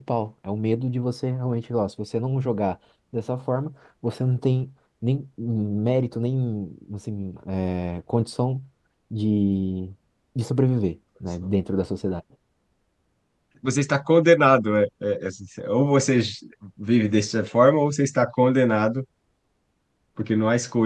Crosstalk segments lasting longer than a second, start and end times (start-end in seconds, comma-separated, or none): none